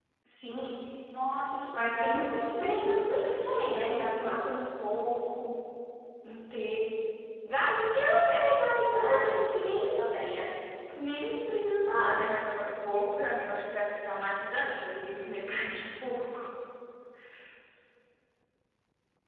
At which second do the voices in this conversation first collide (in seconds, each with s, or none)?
1.7 s